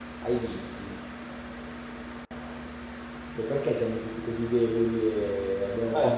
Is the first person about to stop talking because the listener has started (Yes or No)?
Yes